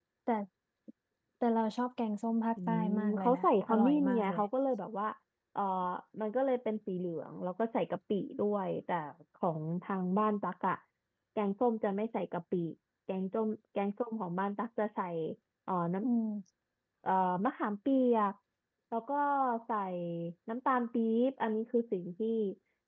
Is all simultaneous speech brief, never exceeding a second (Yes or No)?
No